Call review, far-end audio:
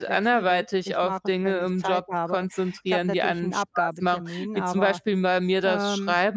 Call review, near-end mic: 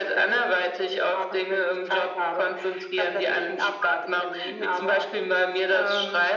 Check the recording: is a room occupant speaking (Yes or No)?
No